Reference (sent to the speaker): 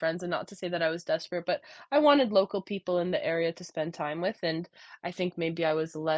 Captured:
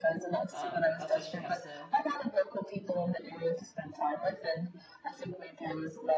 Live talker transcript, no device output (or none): um, that's why she has to